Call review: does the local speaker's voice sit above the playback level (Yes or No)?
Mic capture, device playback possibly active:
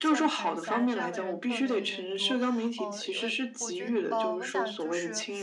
No